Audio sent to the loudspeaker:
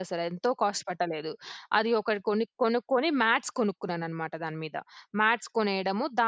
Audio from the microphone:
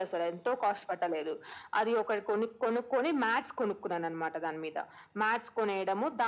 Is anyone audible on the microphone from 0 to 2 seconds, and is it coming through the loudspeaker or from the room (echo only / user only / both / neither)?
echo only